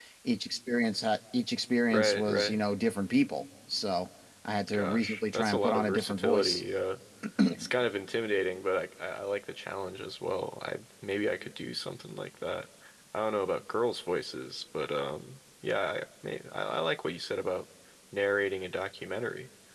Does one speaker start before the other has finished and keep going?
Yes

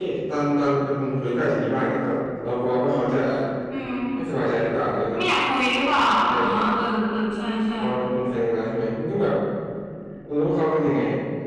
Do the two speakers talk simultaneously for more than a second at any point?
No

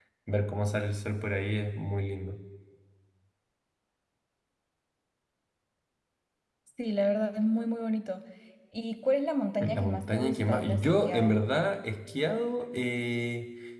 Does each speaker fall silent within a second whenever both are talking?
No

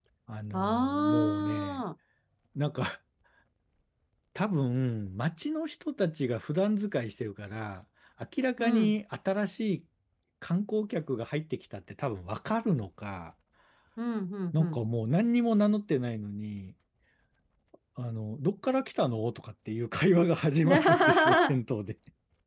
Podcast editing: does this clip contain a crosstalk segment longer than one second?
Yes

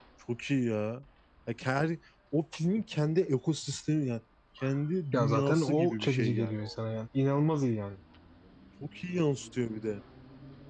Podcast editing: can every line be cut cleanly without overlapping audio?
No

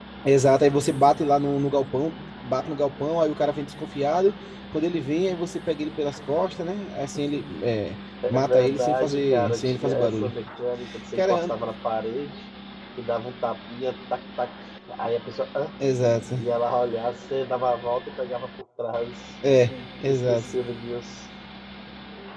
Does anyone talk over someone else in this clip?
Yes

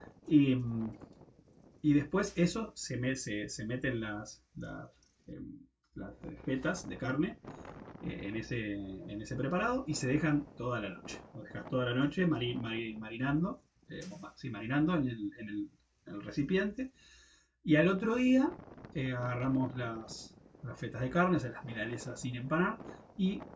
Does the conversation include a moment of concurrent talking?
No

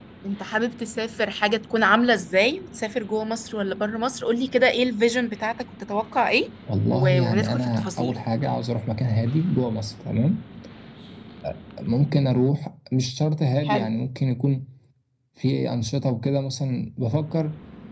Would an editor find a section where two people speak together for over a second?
Yes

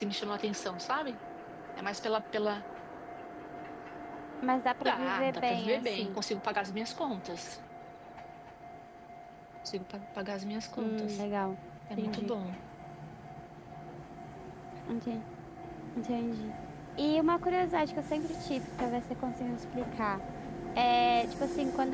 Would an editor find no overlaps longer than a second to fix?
No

